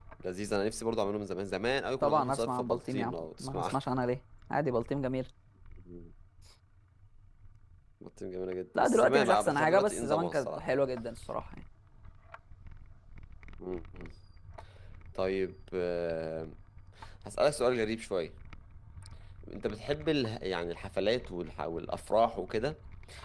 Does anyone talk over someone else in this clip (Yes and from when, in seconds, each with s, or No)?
Yes, from 2.0 s